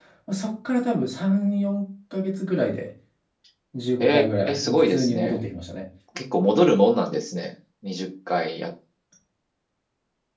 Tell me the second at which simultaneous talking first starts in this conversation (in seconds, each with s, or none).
4.0 s